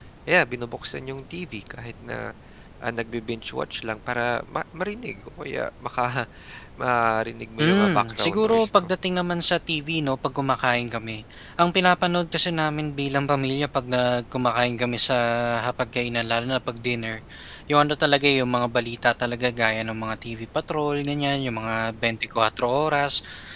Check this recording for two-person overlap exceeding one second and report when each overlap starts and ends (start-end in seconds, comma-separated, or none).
7.6-8.9